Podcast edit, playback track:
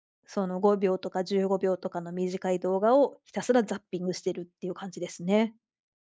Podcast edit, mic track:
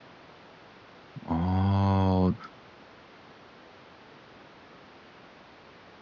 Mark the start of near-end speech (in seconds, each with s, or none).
1.2 s